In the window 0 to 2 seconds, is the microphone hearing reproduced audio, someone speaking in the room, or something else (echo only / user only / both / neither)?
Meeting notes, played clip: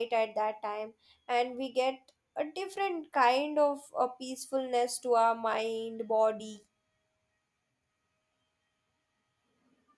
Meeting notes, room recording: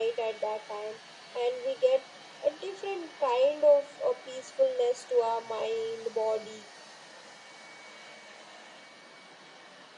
echo only